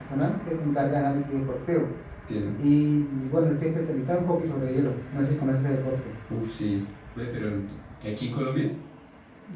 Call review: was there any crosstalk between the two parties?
No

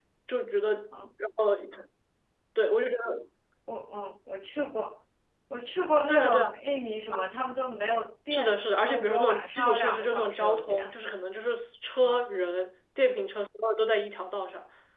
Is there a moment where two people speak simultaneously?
Yes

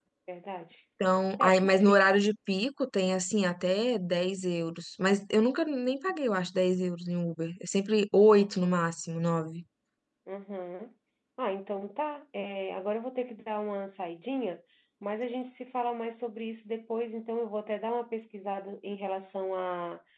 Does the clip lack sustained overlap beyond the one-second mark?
Yes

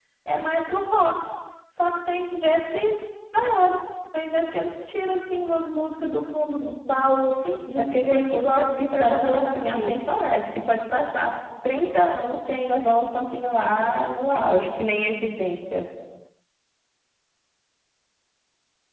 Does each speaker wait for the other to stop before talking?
No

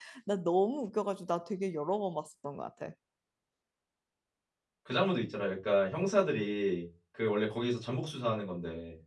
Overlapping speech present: No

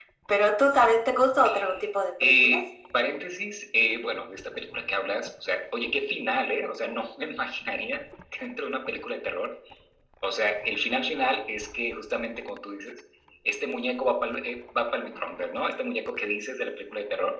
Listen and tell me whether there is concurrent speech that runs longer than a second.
No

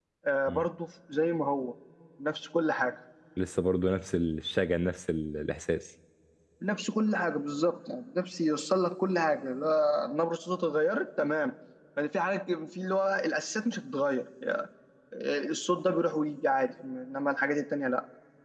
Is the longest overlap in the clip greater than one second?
No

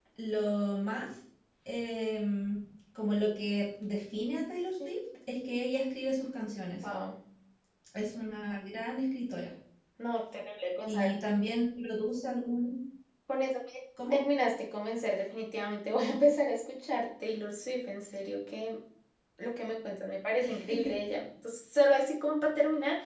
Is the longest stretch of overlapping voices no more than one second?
Yes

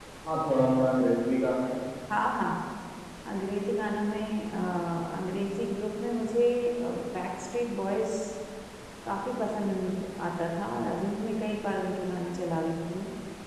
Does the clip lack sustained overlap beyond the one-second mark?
Yes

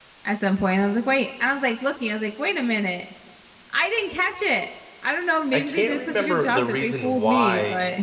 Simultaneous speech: Yes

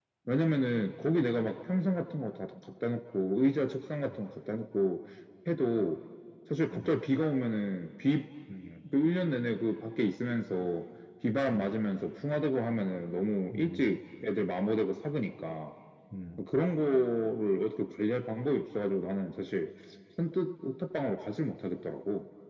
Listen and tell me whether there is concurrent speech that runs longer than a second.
No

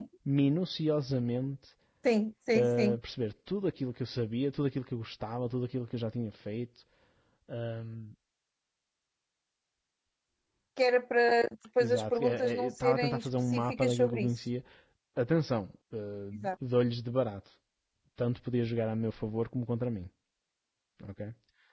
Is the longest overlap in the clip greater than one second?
Yes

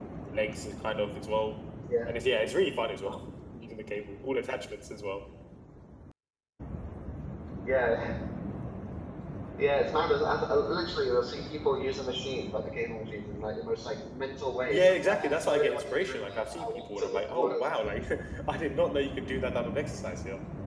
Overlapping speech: Yes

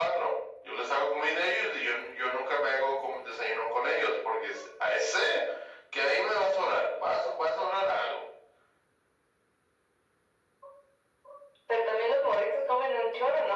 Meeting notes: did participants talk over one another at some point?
No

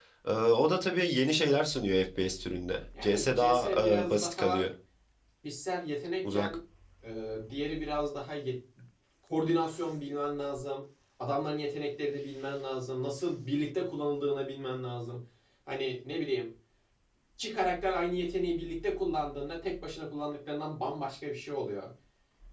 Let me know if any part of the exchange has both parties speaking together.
Yes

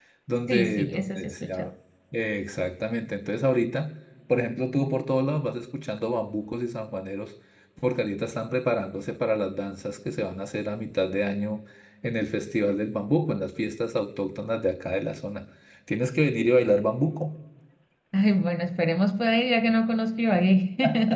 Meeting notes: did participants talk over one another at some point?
Yes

